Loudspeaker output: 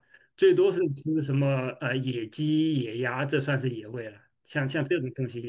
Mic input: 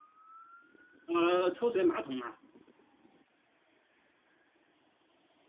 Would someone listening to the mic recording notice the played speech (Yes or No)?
No